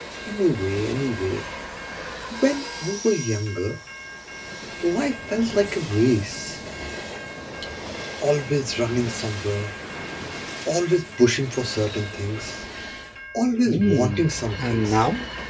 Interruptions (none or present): present